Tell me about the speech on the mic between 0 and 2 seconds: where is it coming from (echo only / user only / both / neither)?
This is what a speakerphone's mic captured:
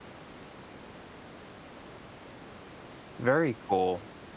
neither